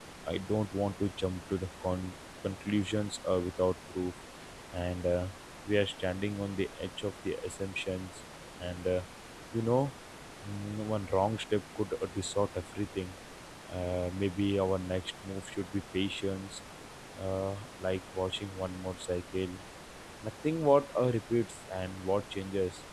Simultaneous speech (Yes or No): No